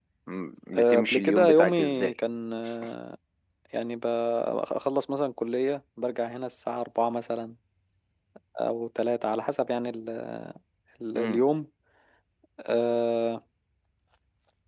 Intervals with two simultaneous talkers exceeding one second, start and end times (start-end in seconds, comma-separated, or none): 0.8-2.1